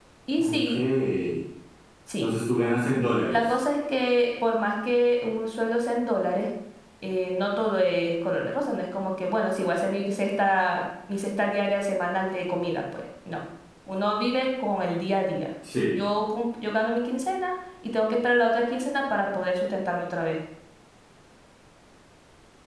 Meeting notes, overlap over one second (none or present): none